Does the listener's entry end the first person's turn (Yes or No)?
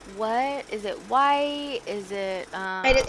Yes